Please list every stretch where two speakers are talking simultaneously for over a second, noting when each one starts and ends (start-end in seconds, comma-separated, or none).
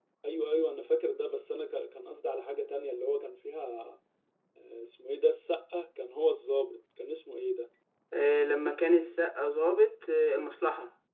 none